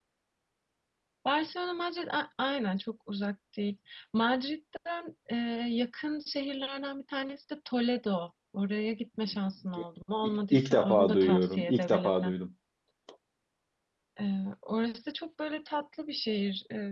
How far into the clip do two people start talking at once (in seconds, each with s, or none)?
10.2 s